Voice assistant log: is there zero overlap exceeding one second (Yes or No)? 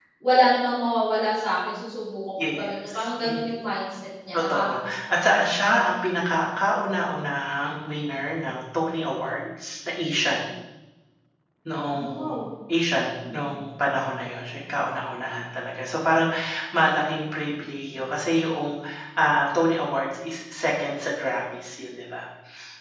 No